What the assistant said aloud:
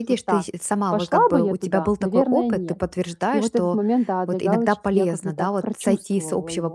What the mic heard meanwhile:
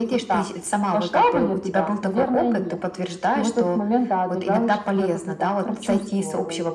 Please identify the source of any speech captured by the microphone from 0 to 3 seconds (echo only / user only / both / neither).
echo only